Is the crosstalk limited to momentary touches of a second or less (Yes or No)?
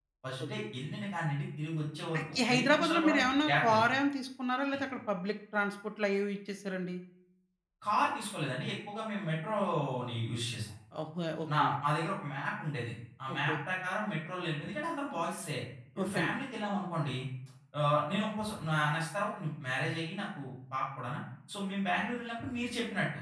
No